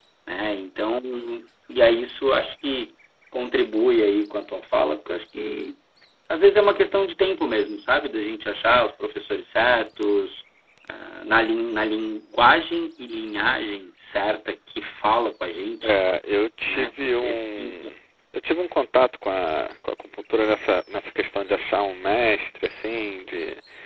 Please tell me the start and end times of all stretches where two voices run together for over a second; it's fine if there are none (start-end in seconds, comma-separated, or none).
16.7-17.9